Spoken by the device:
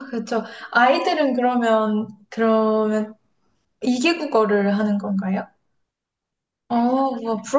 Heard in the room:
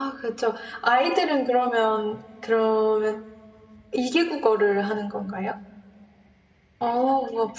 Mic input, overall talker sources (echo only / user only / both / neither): echo only